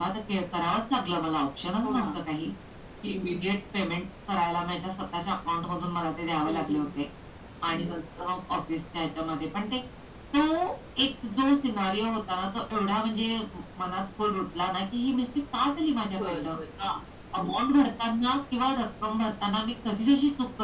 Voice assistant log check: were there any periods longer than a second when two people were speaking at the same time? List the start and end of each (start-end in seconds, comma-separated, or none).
none